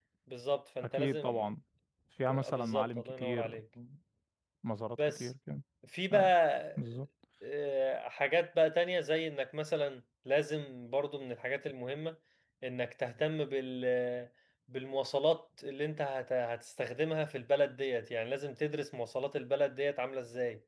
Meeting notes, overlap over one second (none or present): present